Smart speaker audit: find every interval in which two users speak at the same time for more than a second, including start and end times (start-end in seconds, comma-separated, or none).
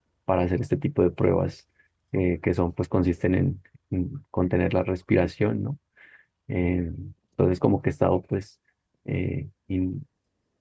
none